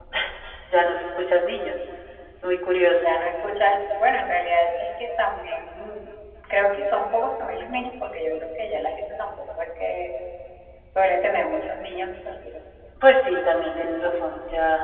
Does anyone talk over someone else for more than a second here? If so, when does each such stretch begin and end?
none

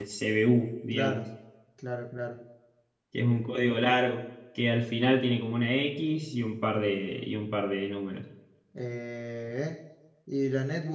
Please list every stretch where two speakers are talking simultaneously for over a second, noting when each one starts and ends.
none

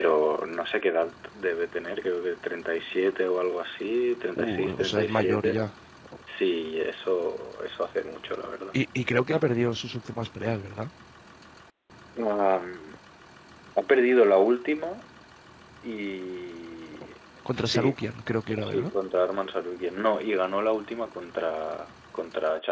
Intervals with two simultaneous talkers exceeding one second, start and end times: 4.4-5.6

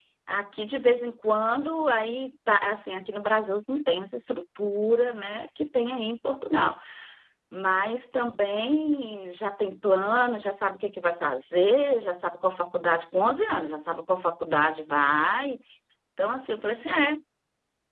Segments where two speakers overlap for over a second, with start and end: none

